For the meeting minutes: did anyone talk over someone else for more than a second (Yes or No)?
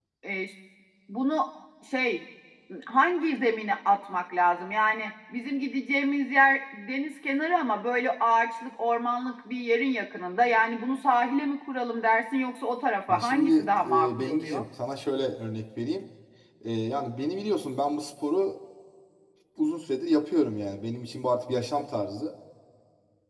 Yes